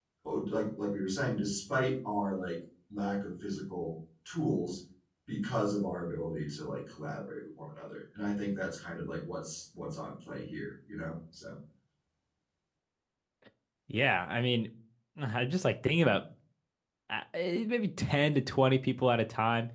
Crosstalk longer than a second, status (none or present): none